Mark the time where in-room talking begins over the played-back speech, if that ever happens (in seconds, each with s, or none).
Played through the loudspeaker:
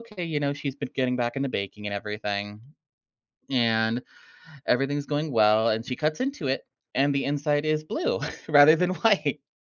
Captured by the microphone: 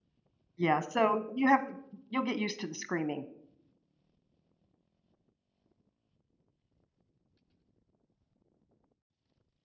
0.6 s